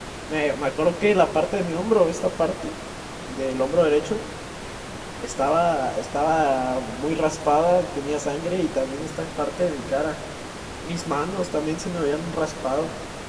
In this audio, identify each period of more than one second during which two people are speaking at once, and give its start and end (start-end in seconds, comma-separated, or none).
none